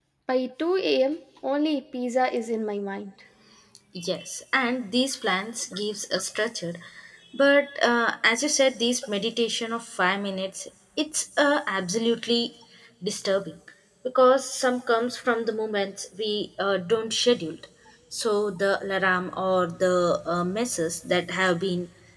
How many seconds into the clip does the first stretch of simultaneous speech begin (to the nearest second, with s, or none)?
none